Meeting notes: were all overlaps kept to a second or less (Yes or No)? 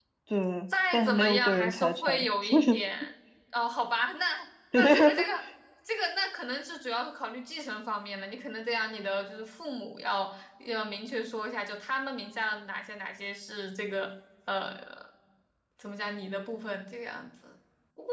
No